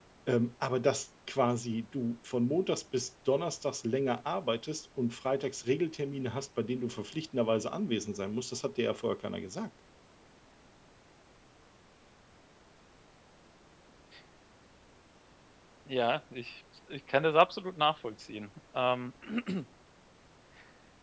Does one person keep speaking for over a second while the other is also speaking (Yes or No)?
No